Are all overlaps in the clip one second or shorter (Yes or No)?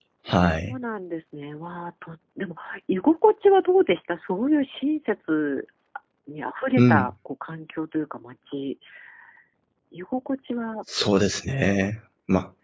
Yes